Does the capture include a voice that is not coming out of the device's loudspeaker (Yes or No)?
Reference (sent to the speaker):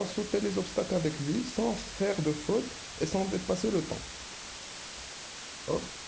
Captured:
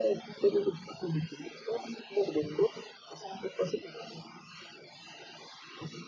No